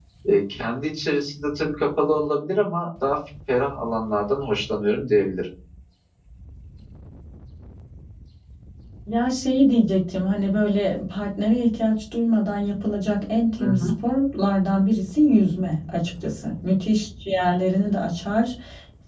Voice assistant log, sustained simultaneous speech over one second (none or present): none